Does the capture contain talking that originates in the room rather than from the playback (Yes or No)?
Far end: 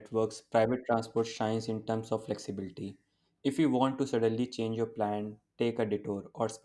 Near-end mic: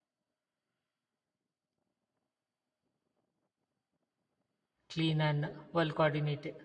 Yes